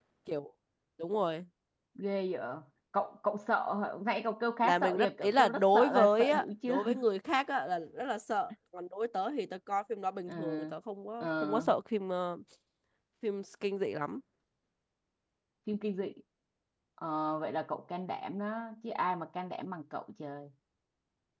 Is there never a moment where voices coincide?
No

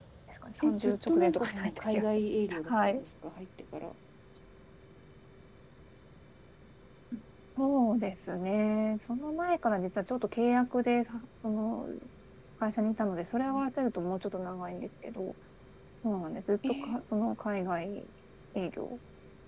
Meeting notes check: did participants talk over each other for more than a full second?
Yes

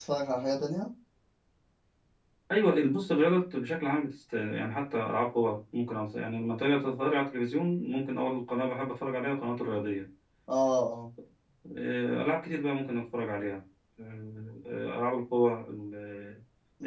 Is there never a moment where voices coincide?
Yes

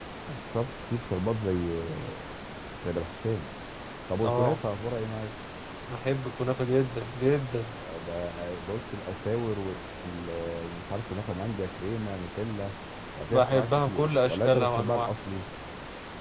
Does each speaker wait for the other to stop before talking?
No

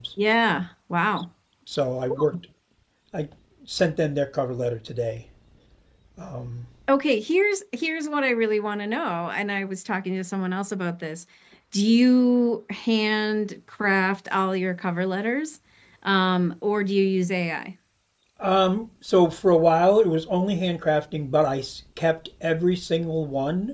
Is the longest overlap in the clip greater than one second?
No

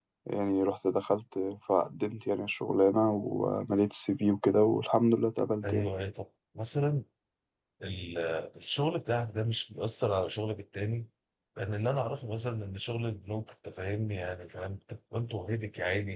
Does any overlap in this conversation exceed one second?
No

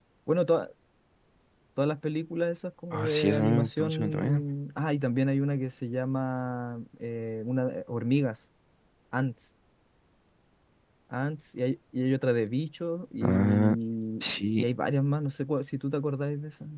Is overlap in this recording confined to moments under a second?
No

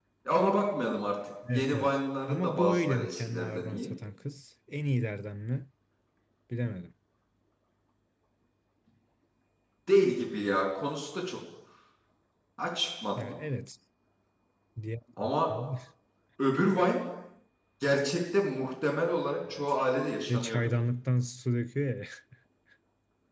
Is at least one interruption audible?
Yes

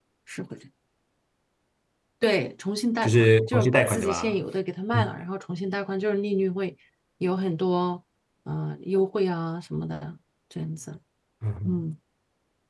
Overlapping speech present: Yes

